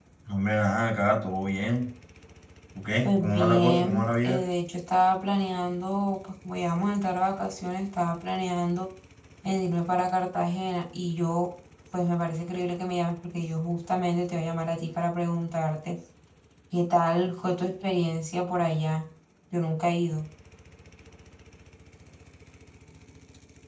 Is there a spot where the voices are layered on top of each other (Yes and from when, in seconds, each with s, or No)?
Yes, from 3.0 s